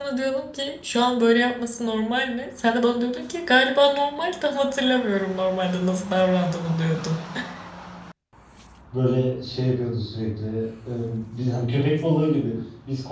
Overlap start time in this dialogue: none

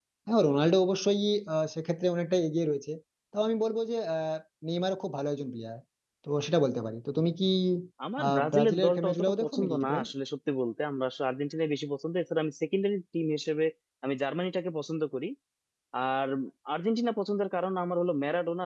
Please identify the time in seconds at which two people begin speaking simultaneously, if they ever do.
8.2 s

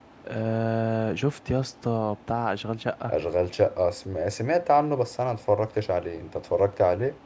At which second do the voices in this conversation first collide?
none

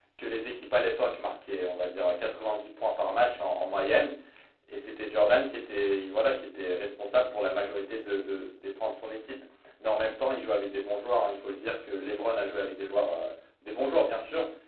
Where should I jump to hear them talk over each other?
none

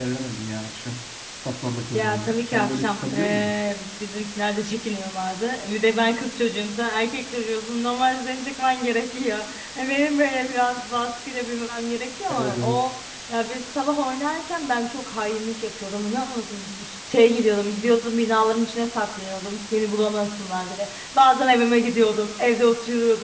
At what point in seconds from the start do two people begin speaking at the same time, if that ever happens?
1.9 s

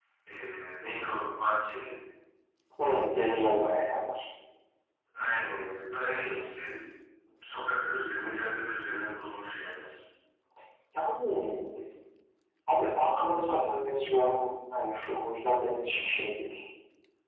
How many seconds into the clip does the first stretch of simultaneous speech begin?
none

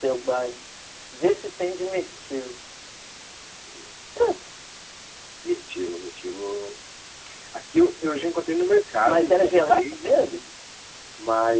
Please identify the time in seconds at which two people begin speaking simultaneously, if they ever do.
9.0 s

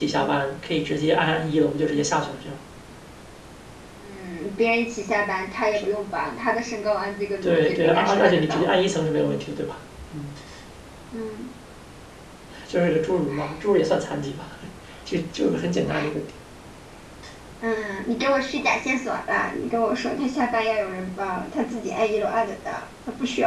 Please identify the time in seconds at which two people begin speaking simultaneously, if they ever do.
7.4 s

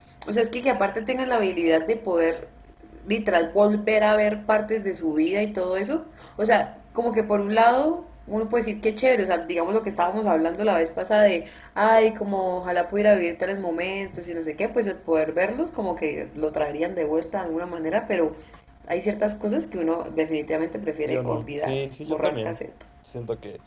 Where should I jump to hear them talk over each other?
21.1 s

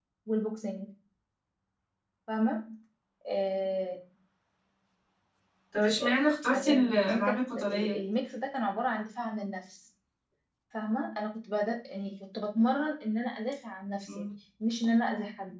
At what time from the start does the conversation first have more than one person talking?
6.5 s

